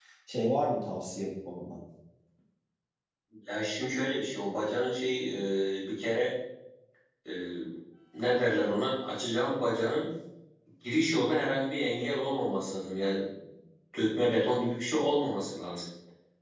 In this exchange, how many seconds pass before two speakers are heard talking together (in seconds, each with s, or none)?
none